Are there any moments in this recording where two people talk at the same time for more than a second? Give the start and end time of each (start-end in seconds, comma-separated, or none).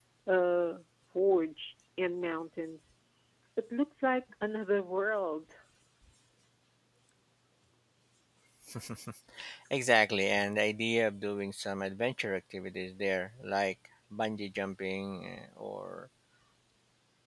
none